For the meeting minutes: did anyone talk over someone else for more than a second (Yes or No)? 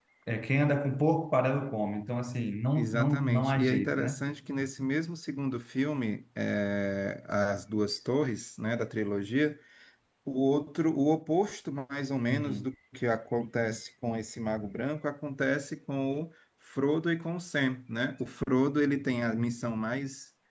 Yes